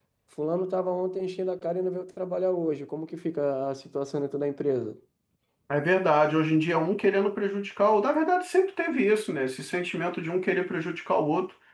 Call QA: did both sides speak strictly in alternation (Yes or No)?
Yes